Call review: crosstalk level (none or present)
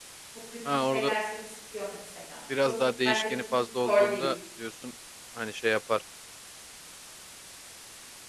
present